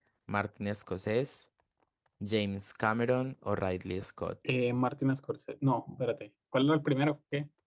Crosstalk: none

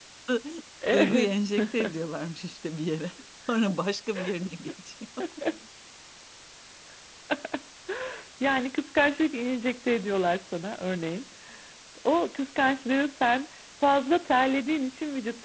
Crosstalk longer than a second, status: none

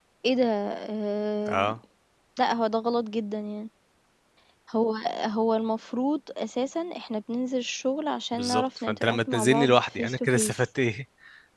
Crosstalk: present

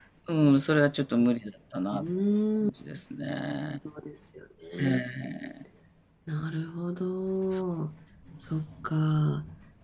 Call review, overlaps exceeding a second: none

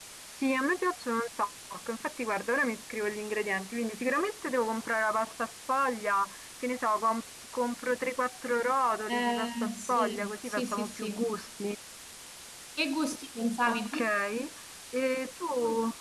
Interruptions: present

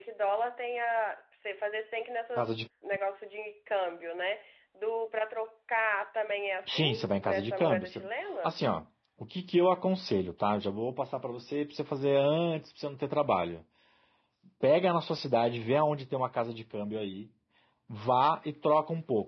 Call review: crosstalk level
present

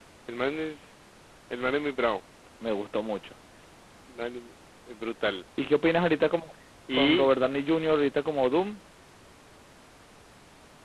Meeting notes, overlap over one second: none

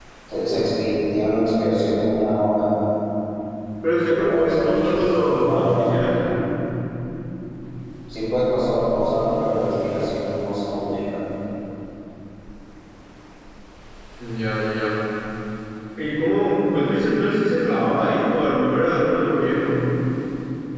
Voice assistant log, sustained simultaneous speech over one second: present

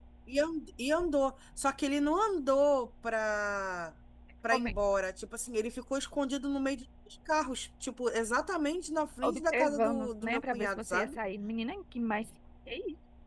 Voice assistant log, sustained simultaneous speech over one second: present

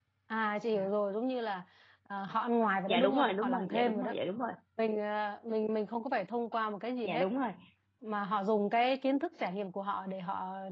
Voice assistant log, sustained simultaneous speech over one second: present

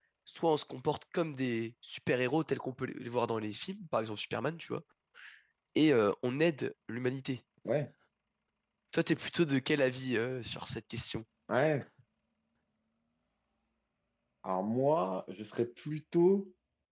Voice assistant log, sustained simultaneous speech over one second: none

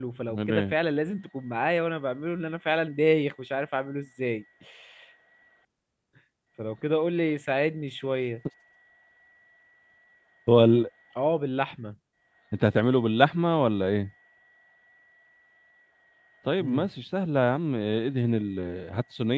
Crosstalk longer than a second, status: none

